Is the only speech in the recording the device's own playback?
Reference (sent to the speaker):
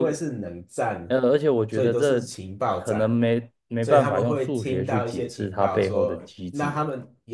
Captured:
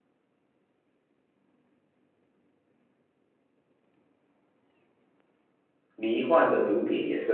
No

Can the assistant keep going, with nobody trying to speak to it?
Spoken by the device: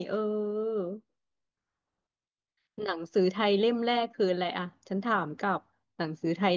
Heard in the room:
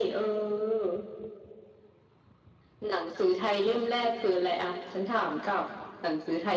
Yes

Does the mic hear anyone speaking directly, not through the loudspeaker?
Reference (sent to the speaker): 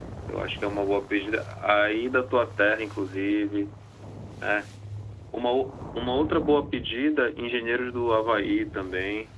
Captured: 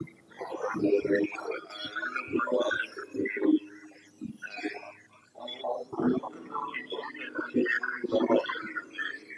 No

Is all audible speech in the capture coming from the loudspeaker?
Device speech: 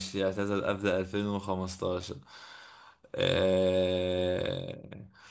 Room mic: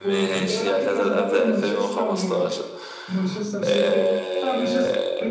No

